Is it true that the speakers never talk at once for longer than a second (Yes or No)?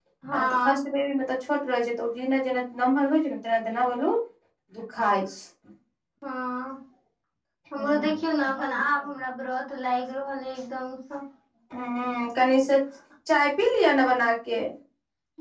Yes